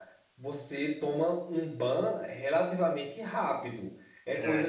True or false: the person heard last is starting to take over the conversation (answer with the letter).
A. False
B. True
A